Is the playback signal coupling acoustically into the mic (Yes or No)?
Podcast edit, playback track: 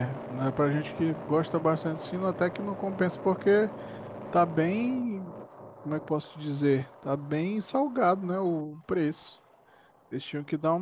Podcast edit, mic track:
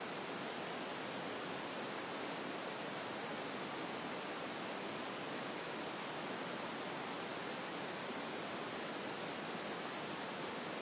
No